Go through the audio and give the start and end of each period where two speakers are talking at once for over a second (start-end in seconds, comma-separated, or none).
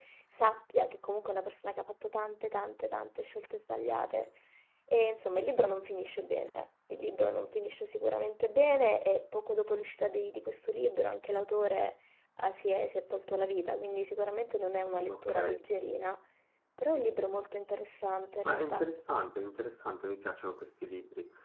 none